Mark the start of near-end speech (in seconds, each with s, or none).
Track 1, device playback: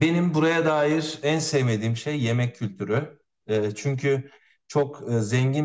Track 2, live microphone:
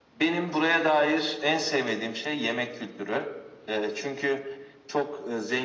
none